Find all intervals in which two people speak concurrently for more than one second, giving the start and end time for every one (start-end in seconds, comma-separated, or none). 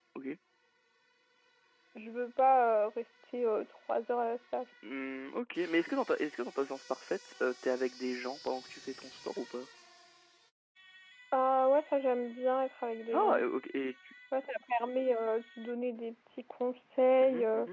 none